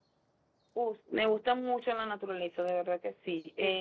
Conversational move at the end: listening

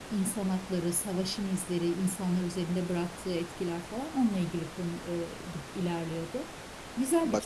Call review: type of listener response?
taking over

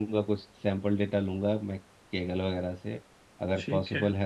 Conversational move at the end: listening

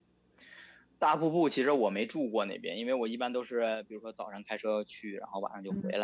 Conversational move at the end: taking over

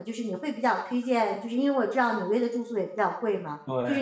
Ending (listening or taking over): listening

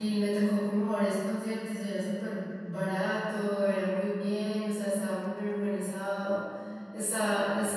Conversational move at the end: listening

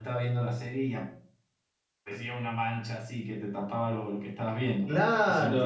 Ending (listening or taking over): taking over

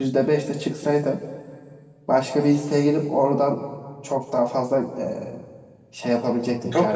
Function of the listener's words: taking over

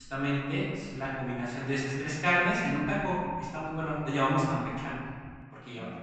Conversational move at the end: taking over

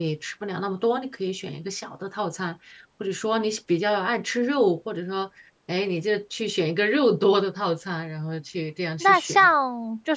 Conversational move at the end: taking over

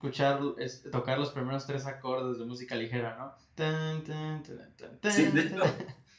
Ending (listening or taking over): taking over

